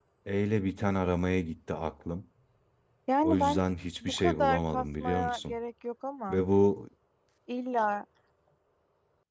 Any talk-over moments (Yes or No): Yes